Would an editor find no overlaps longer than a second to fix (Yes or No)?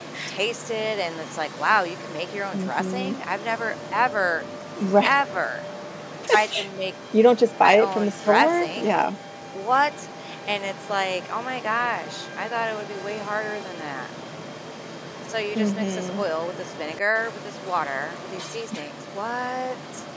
No